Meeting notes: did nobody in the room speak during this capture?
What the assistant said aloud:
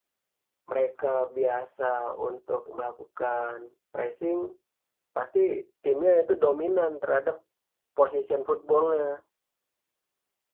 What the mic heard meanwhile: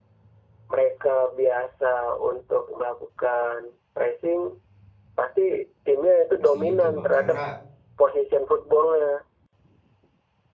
No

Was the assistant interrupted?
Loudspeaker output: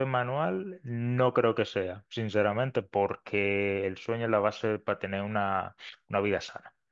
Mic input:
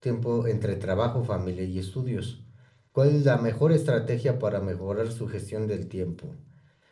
Yes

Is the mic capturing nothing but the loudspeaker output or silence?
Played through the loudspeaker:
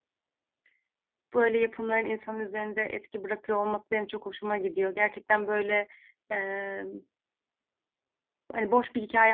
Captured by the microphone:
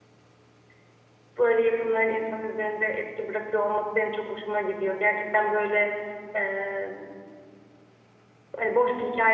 Yes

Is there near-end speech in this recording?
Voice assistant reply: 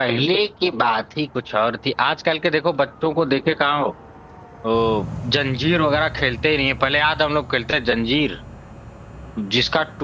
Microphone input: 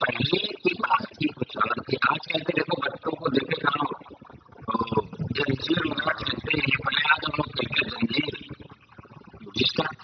Yes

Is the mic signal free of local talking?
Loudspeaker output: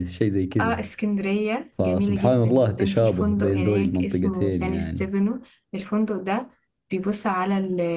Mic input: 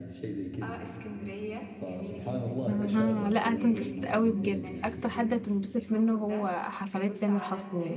No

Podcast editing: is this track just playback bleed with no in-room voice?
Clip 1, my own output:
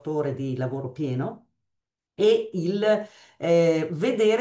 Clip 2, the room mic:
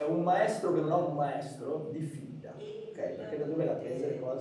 No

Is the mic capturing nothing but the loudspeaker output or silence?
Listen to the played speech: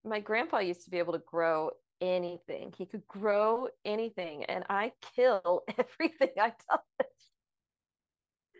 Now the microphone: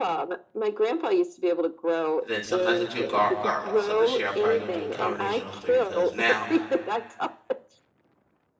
No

